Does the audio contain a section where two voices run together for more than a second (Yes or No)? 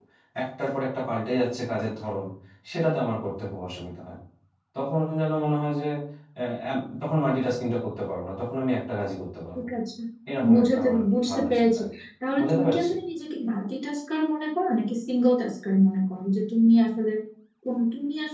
Yes